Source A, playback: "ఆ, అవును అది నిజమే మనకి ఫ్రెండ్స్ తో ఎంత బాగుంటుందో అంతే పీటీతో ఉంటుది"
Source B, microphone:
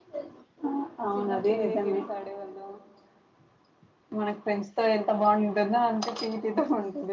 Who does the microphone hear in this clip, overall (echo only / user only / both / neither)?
both